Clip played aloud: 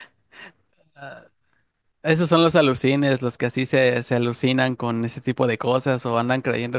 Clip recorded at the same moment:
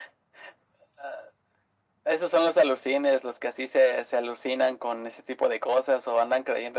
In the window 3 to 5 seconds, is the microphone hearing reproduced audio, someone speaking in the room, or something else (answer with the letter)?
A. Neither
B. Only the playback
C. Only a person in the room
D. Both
B